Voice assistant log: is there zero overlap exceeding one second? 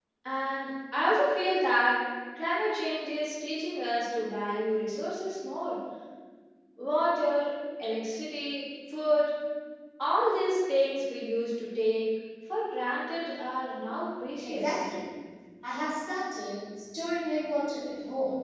Yes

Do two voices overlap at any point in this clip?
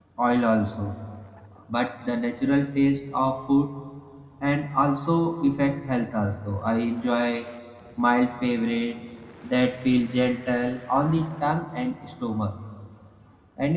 No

